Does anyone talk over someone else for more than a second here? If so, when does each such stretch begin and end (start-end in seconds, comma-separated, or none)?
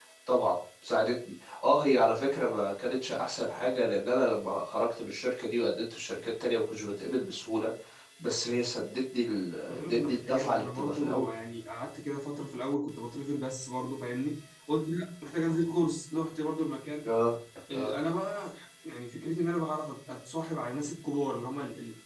9.7-11.3